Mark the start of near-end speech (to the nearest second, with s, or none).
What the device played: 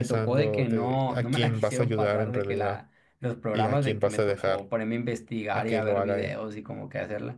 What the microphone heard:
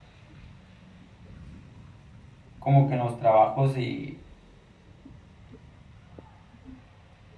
3 s